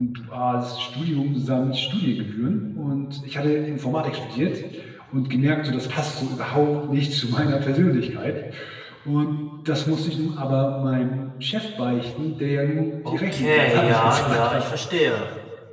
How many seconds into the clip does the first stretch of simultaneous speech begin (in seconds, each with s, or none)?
13.1 s